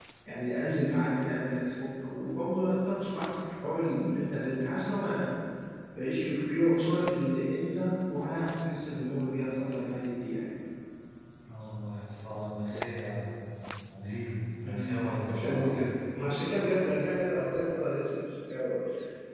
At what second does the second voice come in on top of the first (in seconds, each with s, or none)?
14.6 s